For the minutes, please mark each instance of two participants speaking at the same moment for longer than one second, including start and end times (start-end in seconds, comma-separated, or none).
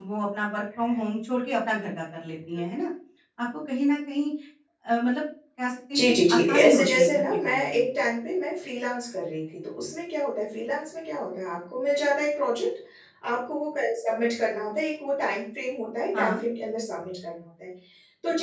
6.0-7.9